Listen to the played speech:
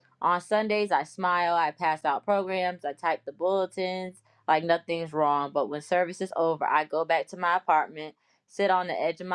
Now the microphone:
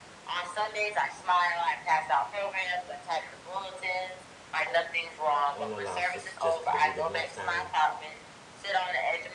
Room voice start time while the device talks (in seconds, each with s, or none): 5.5 s